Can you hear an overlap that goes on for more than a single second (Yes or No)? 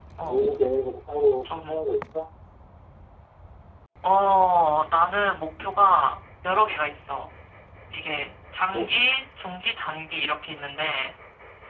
No